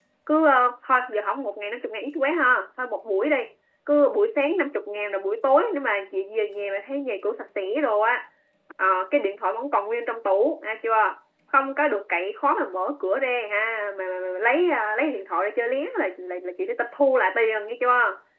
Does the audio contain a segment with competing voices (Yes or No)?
No